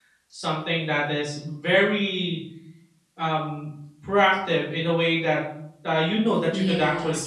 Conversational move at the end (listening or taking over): taking over